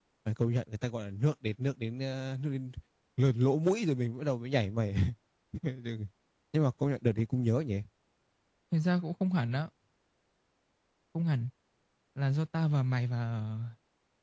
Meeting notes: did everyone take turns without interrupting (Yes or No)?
Yes